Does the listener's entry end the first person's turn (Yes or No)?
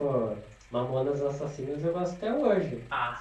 Yes